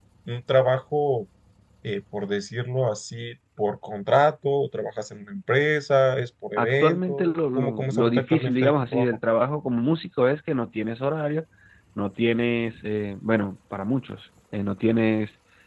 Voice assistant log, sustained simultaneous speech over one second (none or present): present